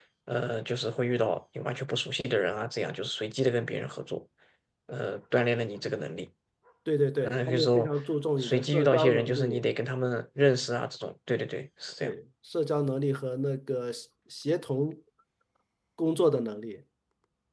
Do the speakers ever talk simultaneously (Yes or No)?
Yes